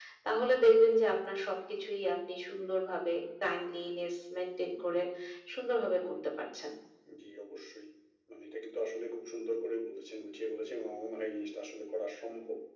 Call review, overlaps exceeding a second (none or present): none